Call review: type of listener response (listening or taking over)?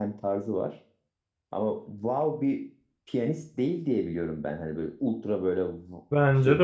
taking over